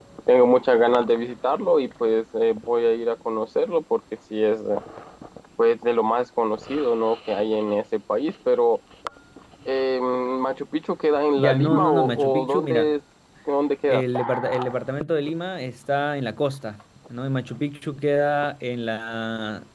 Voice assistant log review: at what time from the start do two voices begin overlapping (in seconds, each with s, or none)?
11.3 s